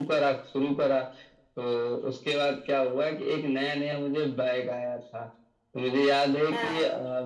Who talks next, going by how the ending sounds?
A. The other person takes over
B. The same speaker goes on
B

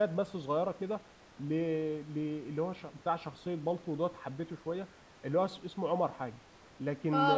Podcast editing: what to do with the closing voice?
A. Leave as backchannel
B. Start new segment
B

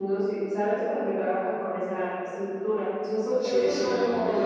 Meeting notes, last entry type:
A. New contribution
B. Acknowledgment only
A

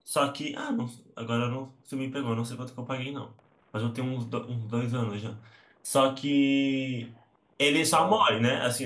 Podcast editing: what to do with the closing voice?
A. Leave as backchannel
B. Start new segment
A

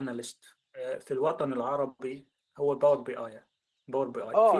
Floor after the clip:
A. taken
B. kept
A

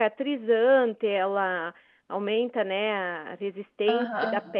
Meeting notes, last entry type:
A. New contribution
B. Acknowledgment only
B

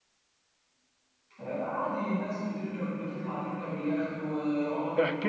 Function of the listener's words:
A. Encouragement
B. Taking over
B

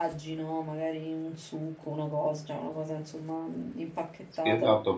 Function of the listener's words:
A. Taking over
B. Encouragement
A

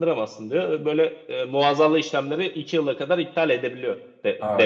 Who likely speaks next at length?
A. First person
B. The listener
B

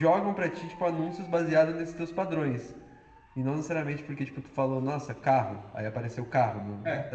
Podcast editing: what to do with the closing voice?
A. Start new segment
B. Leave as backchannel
A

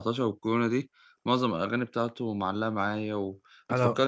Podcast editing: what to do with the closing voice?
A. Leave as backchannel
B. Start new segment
A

